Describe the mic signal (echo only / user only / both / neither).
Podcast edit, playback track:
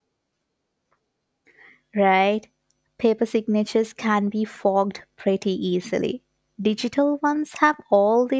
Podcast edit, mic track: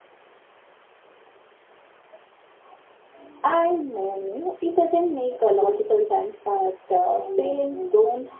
user only